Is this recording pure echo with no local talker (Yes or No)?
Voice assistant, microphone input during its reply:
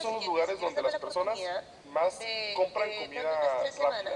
Yes